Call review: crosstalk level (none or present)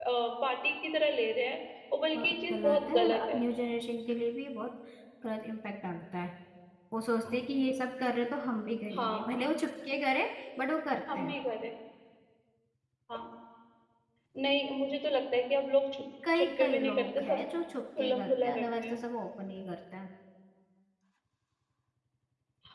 present